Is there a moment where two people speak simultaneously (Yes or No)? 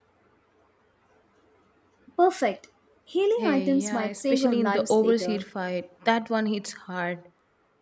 Yes